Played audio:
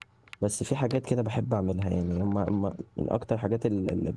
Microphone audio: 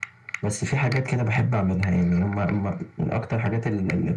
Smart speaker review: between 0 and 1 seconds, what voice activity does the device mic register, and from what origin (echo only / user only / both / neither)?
echo only